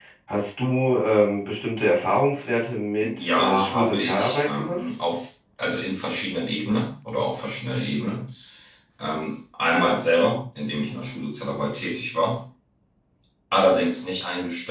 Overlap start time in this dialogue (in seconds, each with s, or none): 3.0 s